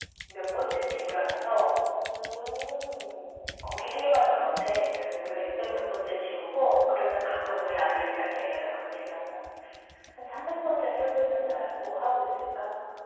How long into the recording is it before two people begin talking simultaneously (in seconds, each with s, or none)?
none